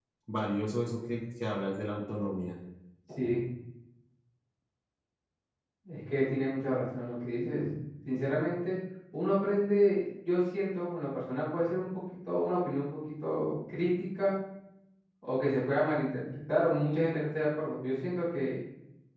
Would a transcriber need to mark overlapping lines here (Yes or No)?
No